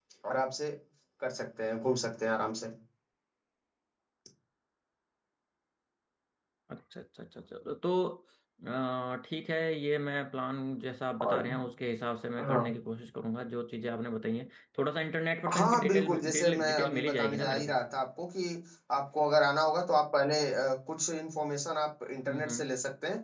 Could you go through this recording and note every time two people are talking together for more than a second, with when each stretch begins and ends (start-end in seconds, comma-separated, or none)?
15.5-17.7